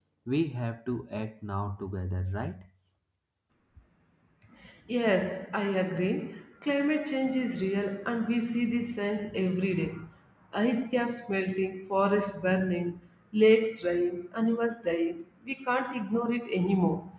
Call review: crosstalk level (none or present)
none